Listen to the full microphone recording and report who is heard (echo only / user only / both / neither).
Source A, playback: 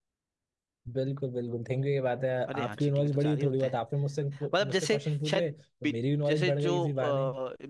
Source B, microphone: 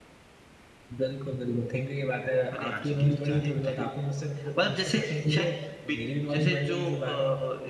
echo only